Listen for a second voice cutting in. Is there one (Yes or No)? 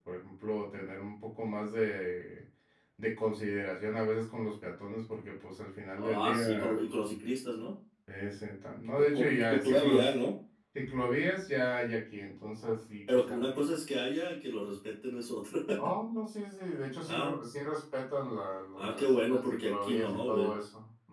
Yes